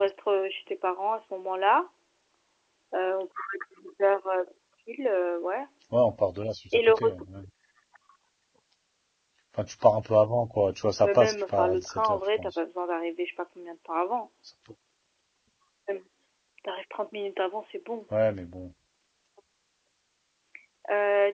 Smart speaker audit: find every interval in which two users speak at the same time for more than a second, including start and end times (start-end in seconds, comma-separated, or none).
11.0-12.5